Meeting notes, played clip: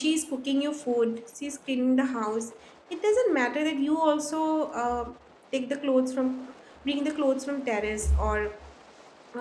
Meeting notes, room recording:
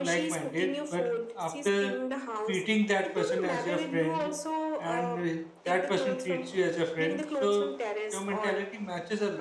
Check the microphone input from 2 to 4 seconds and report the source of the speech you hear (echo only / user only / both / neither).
both